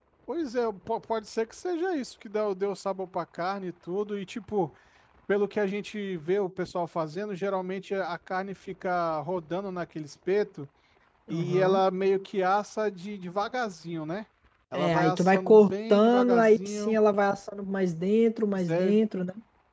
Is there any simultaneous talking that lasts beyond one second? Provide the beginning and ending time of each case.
14.7-17.0

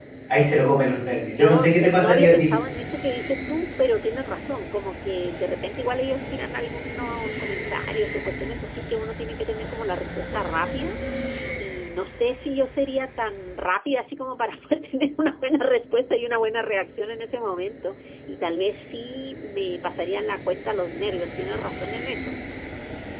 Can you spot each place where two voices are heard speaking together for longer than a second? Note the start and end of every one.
0.9-2.6

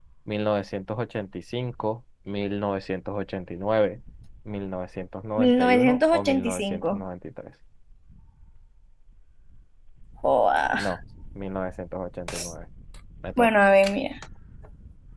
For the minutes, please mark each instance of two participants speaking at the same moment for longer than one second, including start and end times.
5.4-7.0

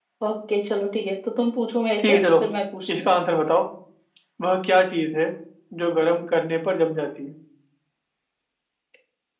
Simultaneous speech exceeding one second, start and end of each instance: none

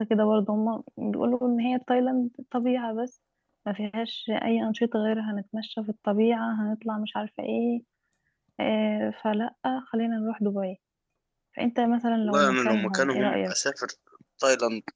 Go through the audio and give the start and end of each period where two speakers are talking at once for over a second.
12.2-13.5

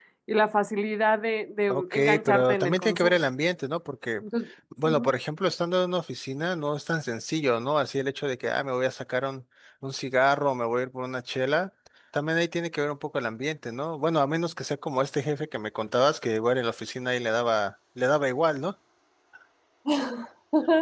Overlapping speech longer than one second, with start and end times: 1.7-3.2

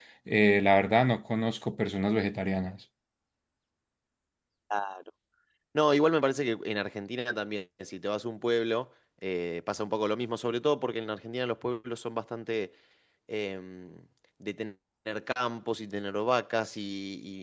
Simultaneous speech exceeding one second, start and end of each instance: none

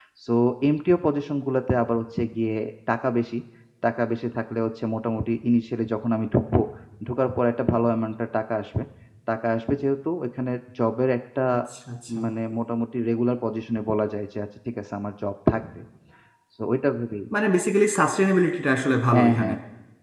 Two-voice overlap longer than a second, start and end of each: none

